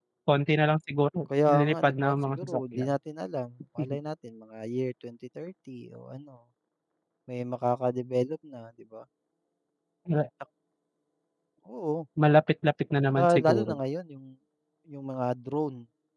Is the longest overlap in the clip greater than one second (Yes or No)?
Yes